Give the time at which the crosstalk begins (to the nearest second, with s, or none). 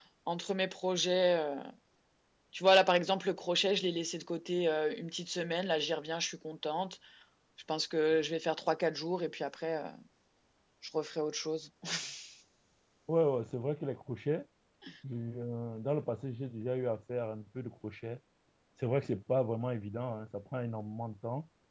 none